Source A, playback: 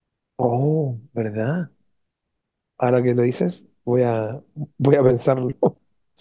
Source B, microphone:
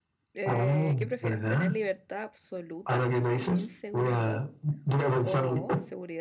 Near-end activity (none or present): present